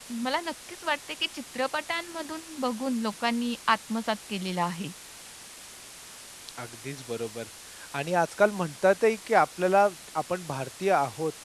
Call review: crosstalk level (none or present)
none